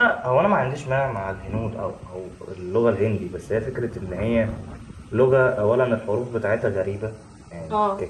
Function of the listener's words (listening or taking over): listening